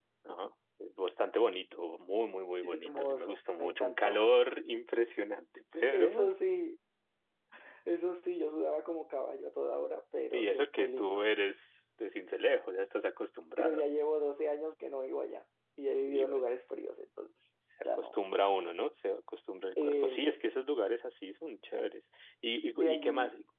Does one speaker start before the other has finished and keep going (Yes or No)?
Yes